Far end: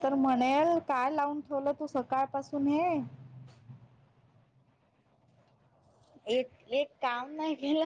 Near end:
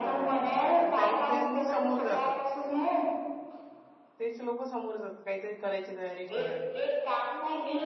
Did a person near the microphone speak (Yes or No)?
Yes